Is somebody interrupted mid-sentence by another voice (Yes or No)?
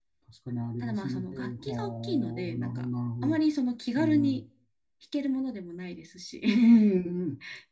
Yes